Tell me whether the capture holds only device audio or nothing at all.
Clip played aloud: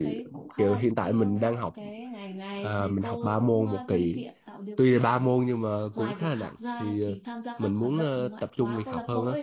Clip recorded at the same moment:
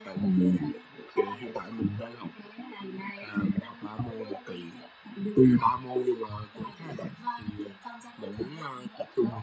Yes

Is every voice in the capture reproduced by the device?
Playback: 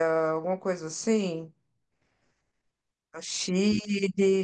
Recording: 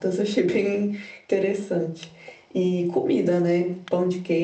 No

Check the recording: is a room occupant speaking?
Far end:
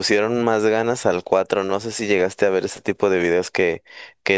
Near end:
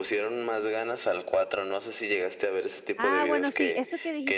Yes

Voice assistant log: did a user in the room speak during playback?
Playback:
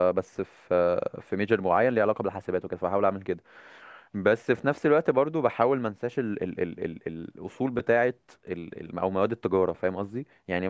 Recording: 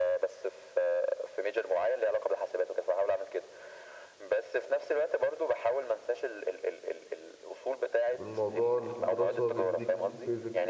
Yes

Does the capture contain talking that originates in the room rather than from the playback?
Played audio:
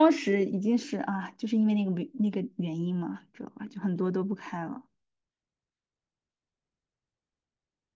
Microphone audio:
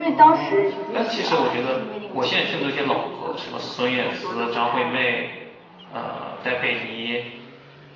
Yes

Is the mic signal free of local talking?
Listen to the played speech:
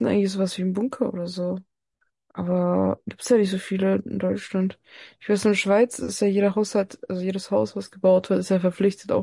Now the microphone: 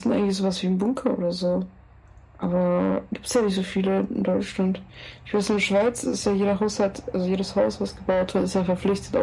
Yes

